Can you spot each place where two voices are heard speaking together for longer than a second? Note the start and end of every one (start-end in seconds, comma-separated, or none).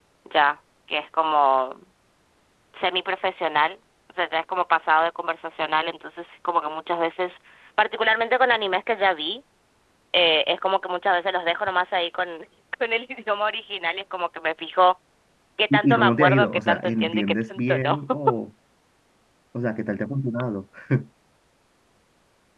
15.7-18.0